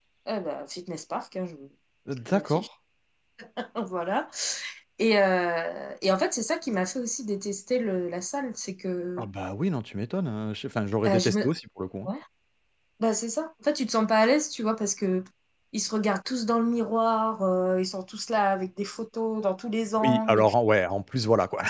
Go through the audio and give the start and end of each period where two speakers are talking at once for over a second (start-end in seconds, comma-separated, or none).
none